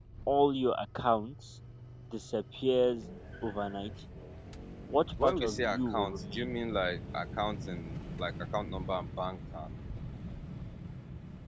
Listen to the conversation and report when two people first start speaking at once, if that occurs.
5.2 s

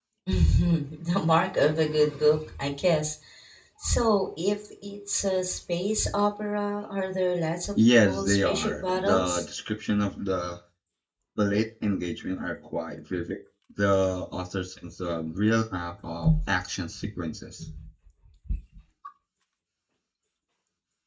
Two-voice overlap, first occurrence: 7.8 s

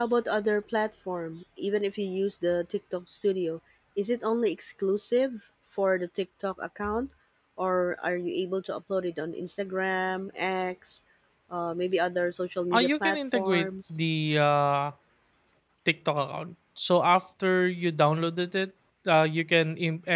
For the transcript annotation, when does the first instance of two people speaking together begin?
12.7 s

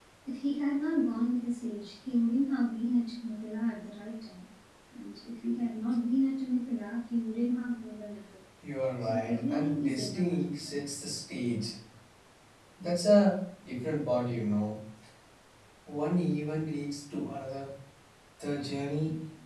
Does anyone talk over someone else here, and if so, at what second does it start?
9.0 s

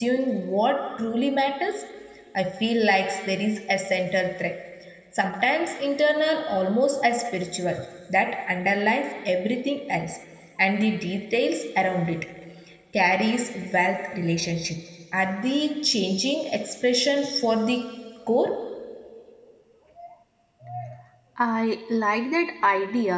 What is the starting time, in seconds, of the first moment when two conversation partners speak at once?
none

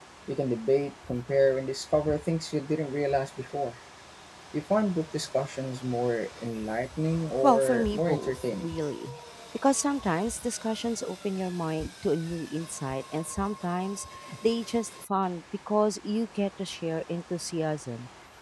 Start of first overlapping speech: 7.4 s

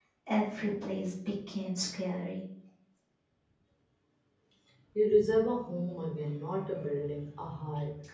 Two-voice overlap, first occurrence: none

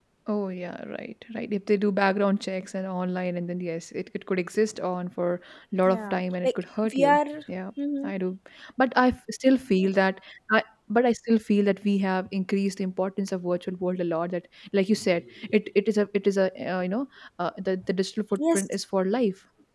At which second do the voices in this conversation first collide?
5.9 s

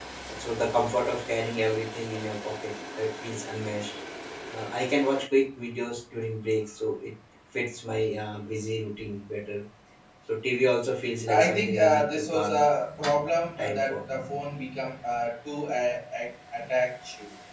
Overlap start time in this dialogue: 11.3 s

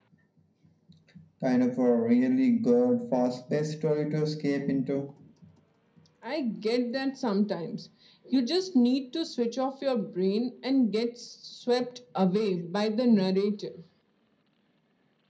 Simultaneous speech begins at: none

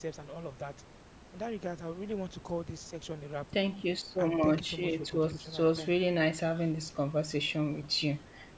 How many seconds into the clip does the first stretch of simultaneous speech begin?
4.2 s

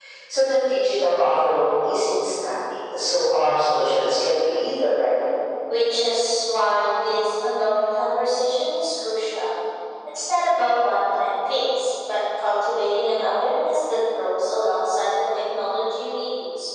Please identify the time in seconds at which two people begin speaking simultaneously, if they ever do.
none

